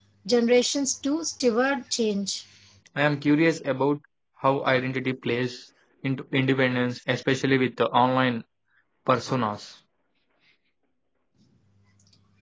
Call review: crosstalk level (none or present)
none